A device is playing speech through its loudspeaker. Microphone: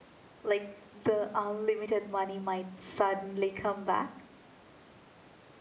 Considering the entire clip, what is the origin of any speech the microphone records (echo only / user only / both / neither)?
user only